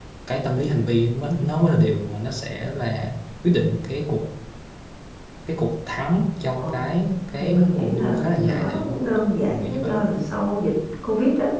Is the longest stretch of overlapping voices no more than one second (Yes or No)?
No